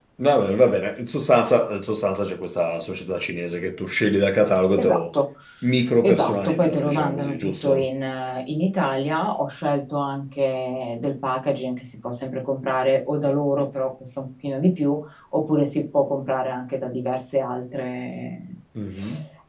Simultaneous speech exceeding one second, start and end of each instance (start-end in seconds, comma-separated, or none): 6.0-7.9